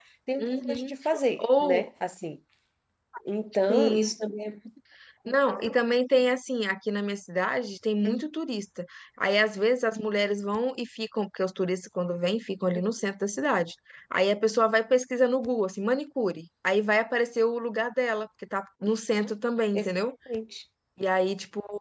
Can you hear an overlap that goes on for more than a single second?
No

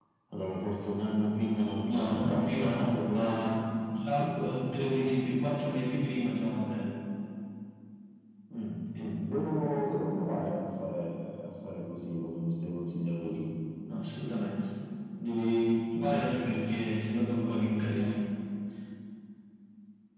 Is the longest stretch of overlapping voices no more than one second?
No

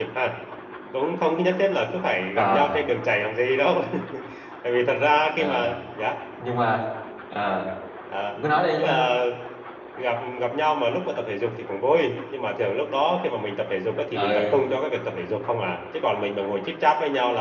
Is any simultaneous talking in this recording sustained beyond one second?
No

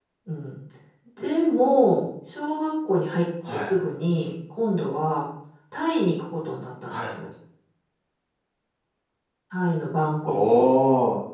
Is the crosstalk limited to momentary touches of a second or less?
Yes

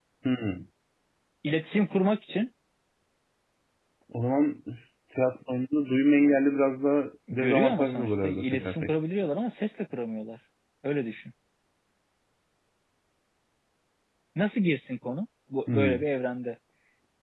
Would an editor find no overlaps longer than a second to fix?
No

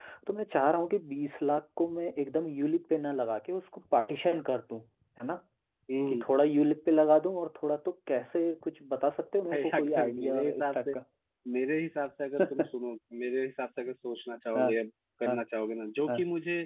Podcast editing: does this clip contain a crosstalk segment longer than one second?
Yes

